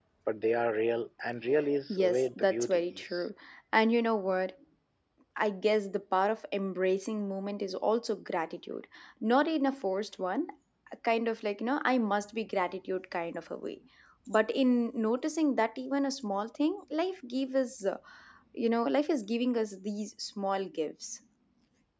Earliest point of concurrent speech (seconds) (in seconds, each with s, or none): 1.9 s